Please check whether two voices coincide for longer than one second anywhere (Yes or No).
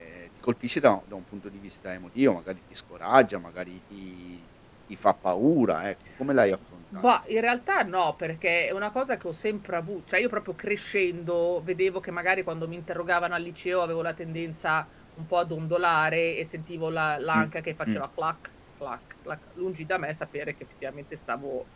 No